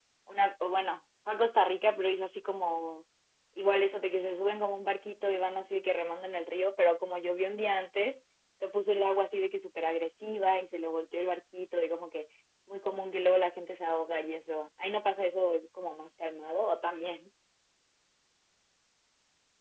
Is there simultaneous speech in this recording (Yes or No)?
No